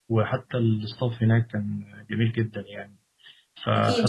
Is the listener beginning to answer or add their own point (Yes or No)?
Yes